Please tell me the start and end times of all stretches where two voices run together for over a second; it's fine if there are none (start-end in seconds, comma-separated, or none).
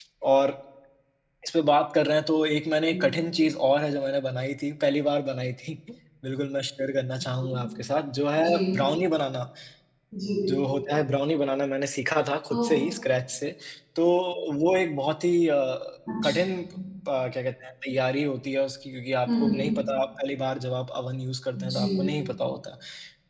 none